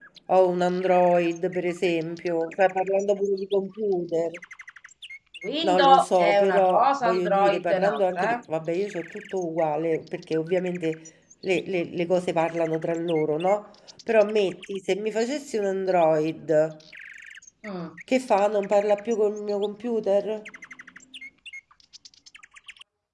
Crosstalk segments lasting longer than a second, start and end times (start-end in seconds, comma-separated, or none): 5.6-8.4